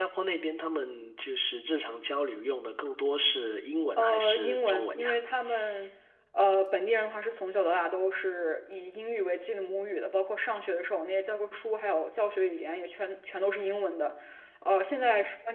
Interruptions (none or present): present